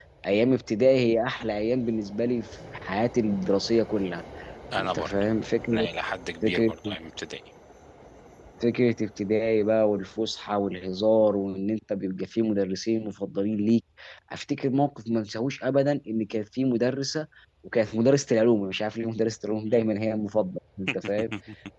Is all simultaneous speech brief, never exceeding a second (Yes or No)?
Yes